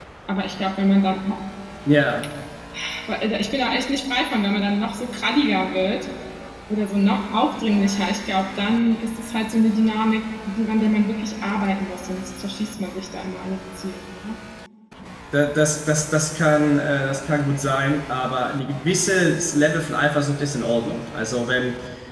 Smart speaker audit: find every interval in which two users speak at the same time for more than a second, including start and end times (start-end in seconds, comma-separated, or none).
none